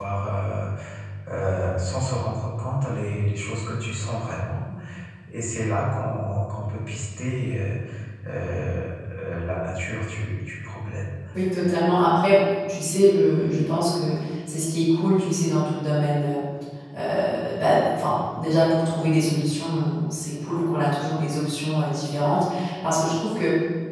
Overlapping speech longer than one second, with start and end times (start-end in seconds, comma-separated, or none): none